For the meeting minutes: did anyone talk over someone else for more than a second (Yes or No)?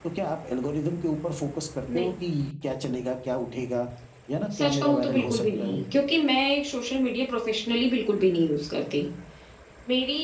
Yes